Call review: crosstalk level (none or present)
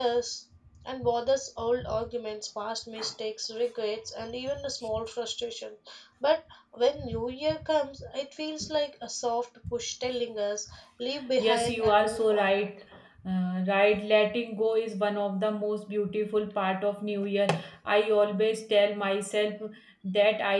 present